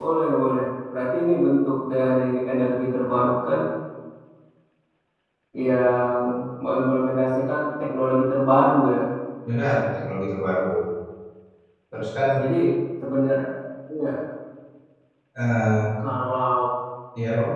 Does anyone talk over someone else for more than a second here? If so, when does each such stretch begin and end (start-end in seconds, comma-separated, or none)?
none